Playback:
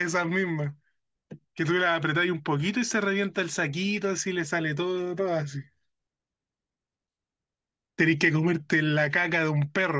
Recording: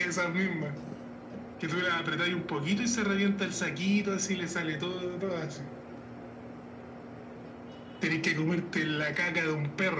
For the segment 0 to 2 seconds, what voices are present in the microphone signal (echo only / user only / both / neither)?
echo only